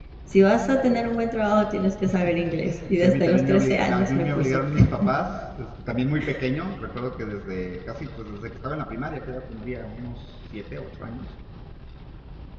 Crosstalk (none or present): present